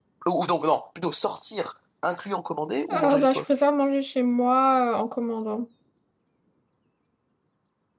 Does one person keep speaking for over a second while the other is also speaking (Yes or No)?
No